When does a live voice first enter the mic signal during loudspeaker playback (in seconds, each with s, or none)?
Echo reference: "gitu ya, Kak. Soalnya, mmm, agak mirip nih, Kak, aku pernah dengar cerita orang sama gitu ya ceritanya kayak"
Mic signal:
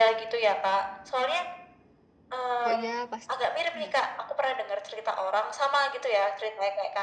2.6 s